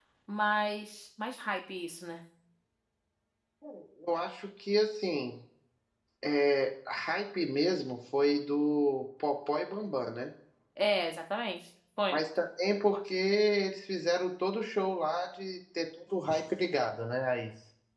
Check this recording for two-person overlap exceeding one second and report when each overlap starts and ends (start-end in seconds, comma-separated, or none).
none